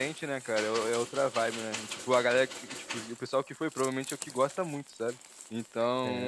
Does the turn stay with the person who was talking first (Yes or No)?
Yes